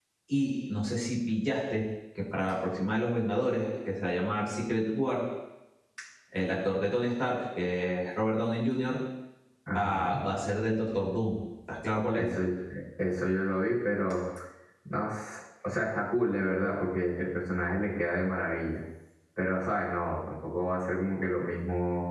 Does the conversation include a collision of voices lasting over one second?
No

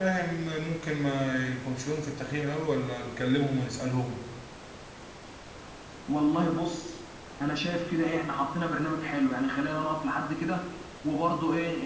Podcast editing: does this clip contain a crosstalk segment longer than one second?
No

